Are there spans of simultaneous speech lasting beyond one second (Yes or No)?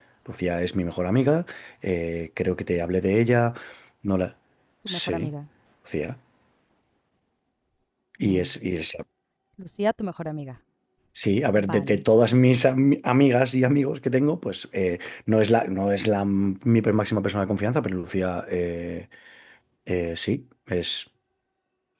No